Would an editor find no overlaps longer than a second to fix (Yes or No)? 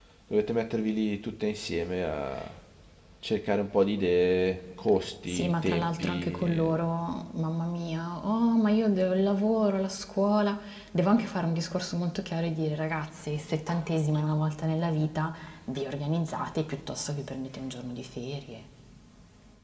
No